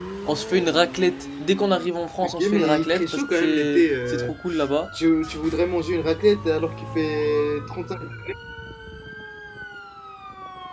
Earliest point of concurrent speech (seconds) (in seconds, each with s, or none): 2.2 s